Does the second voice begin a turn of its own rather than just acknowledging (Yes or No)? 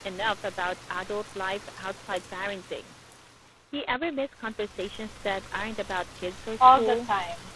Yes